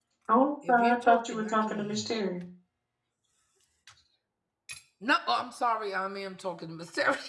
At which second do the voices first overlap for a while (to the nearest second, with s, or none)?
1 s